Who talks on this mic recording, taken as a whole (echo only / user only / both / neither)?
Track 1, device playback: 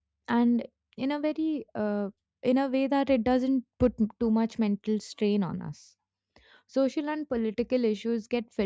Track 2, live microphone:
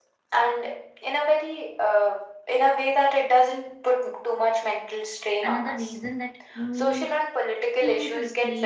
both